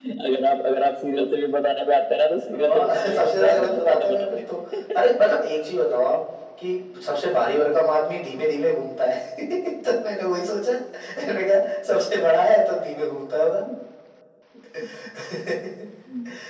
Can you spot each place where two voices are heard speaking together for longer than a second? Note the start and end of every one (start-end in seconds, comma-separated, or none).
2.5-4.4